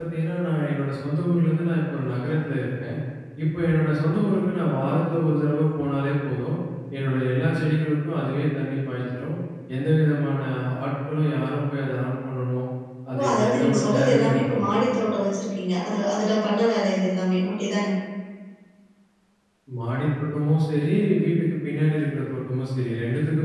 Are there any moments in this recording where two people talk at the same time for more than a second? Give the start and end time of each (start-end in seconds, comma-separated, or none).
13.2-14.7